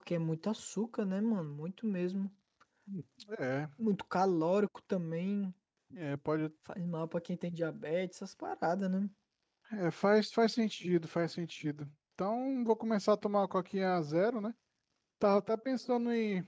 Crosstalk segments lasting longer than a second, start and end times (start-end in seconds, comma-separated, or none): none